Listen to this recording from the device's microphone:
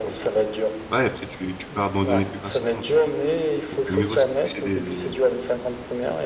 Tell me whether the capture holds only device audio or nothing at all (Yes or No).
No